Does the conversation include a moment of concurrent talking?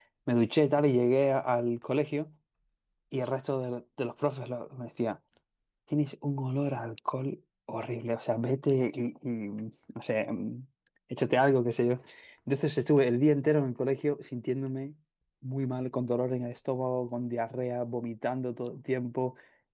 No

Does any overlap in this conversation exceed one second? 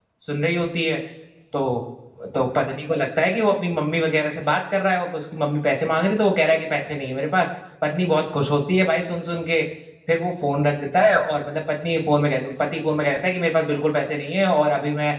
No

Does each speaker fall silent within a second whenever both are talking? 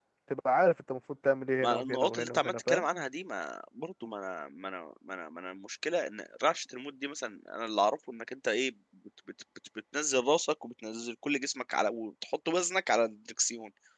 No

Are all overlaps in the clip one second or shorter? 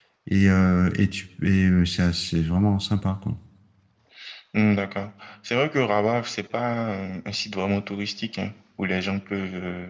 Yes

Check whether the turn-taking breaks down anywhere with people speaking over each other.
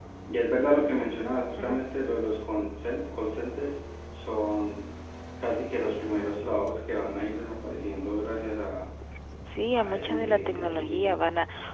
Yes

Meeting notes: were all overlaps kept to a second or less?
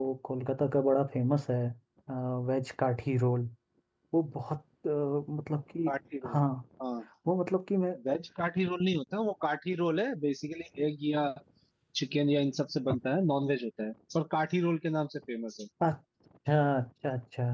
Yes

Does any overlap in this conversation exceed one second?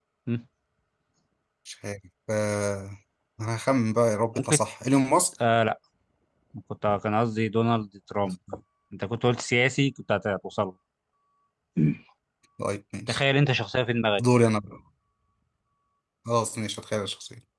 No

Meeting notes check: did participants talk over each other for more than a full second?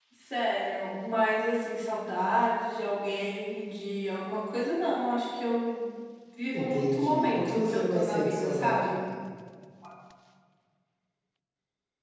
Yes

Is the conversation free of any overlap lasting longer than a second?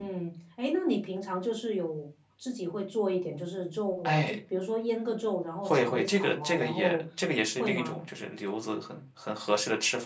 No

